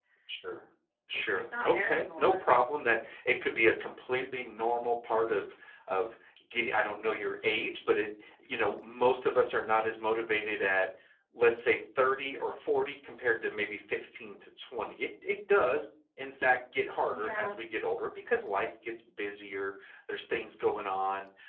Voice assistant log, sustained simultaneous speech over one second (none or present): present